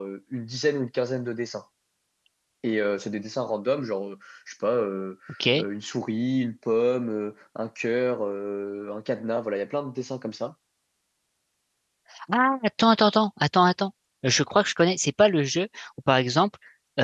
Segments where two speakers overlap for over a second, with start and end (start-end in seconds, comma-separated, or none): none